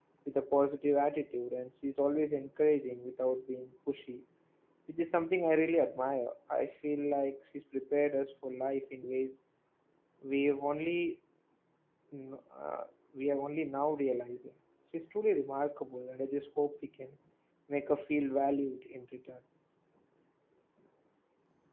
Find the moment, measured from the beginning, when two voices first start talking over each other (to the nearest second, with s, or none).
none